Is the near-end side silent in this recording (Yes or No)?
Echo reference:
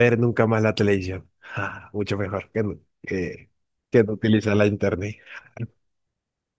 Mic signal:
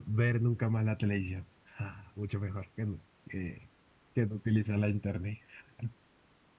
Yes